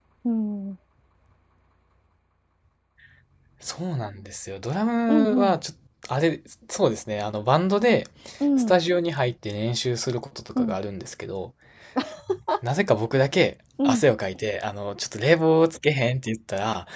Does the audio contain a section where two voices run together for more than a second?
No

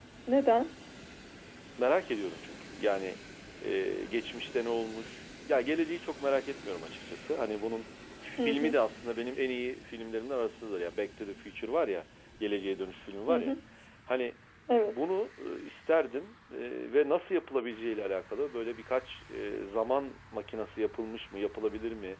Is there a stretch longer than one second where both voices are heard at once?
No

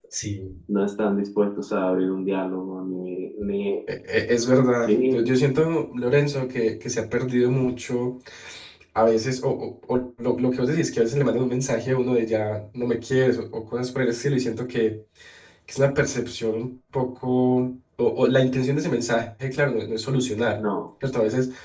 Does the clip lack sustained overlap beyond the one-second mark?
Yes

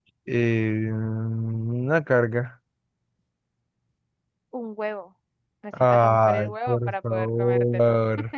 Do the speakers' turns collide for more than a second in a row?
Yes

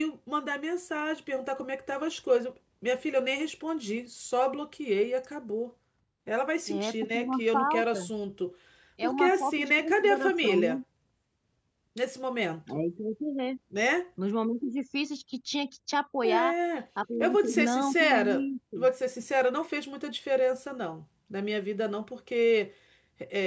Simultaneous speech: Yes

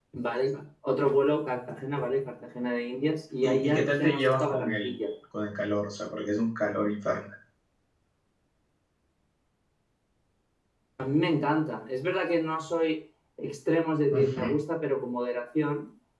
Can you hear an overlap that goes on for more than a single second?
Yes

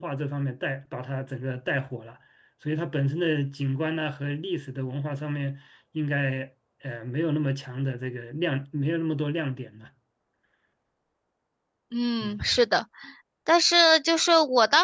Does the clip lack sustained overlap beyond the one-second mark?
Yes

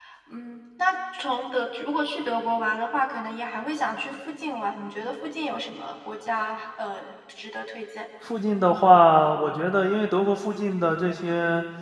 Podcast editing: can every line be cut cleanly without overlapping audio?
Yes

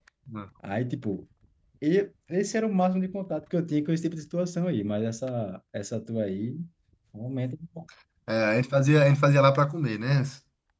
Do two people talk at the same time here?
No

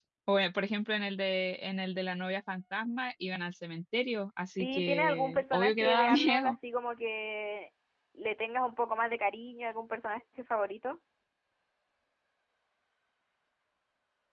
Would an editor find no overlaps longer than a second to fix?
No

